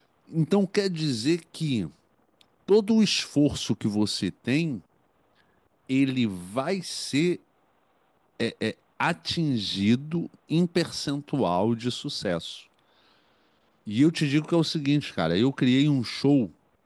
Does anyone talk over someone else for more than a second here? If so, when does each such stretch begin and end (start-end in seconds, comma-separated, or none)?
none